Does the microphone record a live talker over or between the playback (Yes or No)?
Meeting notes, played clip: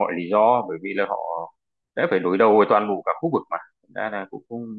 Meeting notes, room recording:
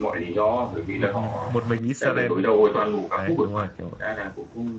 Yes